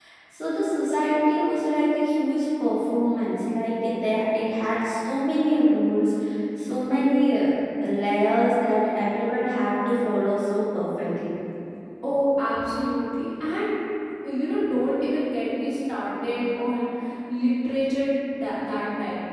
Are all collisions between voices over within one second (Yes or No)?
Yes